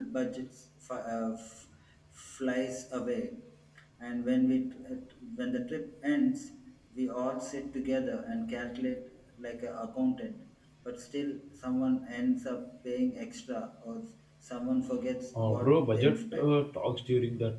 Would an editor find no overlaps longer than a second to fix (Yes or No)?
No